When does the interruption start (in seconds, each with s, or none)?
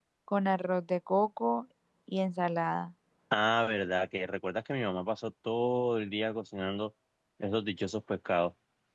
none